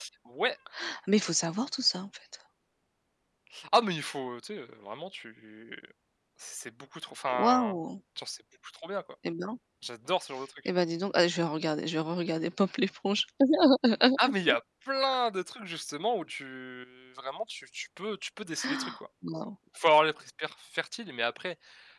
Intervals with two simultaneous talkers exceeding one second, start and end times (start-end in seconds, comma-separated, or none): none